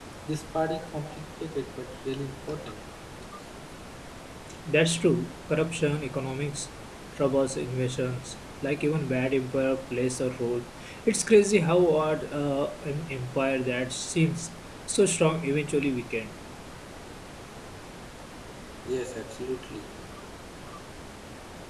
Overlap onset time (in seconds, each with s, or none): none